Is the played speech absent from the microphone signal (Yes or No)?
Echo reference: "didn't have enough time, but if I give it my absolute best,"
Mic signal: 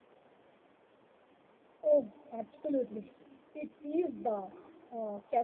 Yes